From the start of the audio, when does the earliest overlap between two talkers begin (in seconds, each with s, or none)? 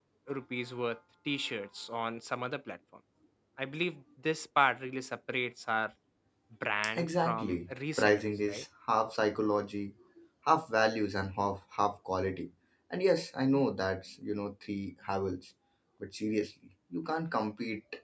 7.0 s